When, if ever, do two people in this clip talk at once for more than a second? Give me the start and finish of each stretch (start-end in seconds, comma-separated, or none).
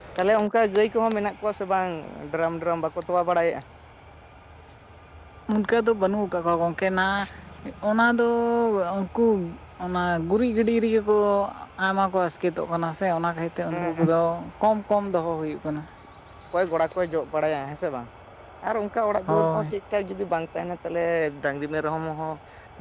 none